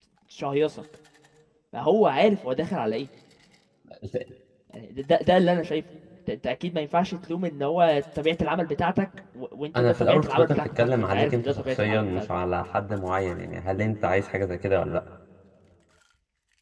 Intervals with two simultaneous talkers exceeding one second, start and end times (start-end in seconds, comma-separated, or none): 9.8-12.2